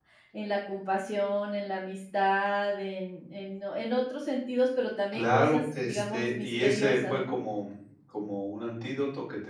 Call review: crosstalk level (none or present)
present